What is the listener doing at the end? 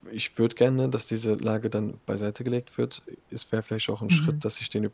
listening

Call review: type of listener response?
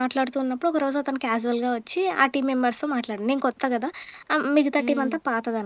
listening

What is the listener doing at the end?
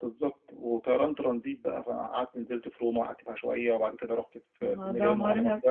taking over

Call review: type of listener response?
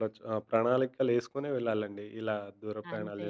taking over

